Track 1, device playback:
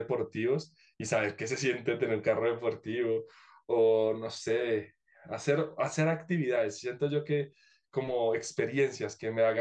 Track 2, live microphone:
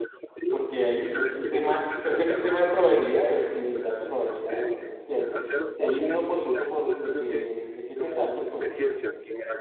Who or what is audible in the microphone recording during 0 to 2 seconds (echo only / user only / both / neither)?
both